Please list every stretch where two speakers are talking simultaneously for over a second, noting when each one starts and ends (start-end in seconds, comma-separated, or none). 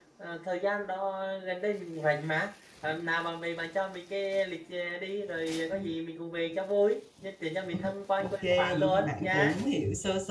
8.2-9.6